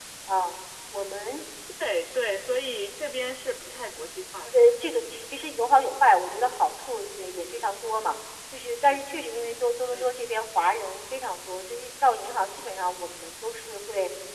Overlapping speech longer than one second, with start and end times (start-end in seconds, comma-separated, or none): none